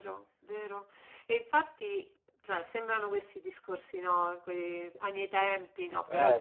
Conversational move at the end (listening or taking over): listening